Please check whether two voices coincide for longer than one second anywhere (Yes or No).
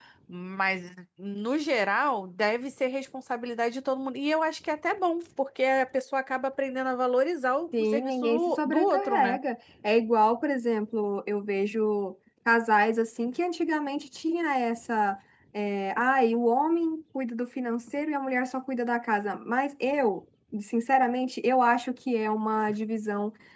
Yes